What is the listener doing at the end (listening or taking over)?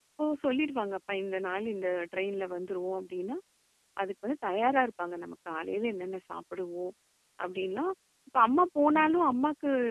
listening